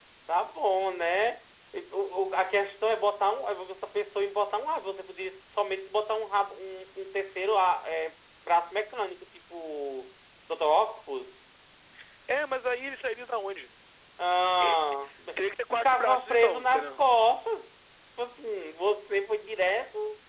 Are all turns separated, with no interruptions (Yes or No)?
No